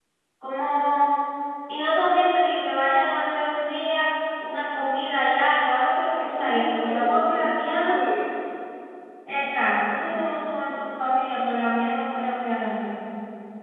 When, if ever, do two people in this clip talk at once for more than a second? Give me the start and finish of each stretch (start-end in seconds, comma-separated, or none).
6.4-8.0